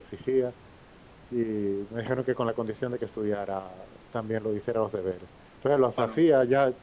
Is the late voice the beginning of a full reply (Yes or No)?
No